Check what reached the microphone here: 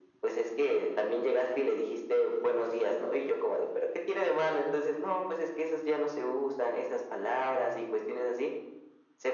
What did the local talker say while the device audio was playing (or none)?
none